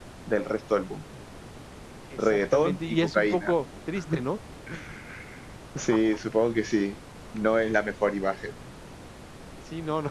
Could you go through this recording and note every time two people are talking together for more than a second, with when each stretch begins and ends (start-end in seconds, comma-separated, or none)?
2.2-3.5